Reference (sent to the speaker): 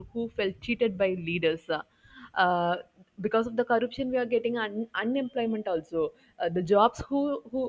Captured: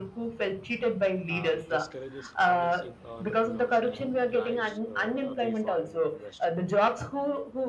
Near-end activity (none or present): present